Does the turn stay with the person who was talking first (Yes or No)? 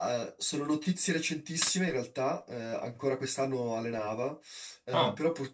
Yes